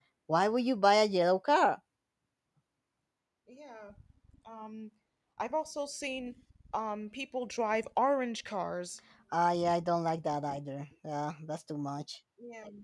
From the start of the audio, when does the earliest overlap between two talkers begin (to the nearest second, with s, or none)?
none